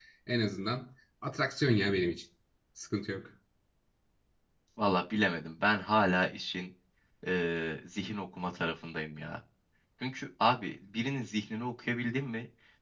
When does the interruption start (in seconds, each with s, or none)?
none